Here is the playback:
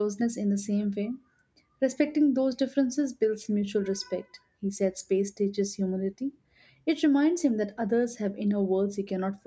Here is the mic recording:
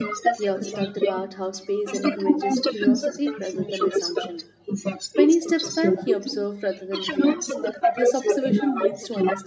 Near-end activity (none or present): present